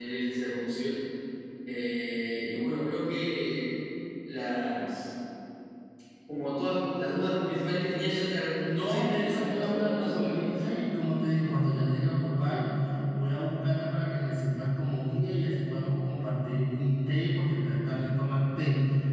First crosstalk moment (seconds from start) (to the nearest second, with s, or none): 9 s